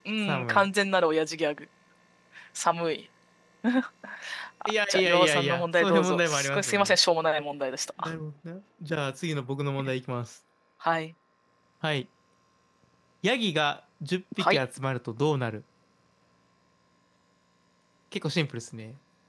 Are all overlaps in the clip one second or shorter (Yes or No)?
No